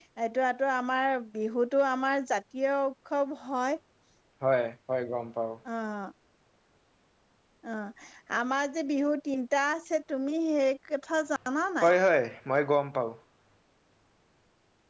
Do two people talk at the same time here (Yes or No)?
No